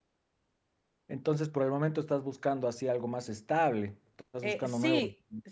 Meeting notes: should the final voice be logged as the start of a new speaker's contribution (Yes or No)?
Yes